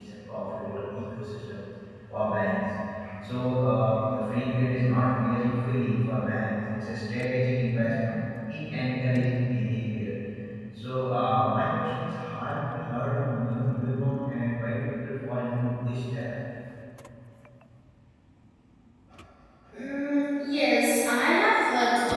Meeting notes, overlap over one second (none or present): none